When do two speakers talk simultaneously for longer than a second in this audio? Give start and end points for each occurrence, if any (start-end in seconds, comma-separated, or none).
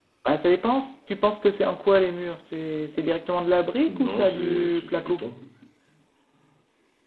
3.9-5.2